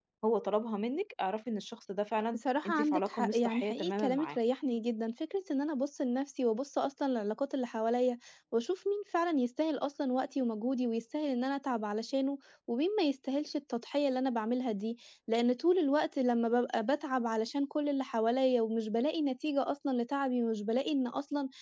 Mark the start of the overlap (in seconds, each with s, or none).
2.3 s